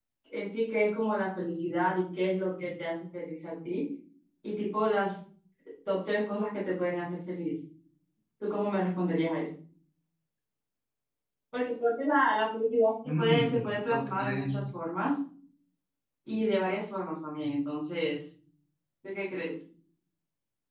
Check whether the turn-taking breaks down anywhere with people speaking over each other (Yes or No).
Yes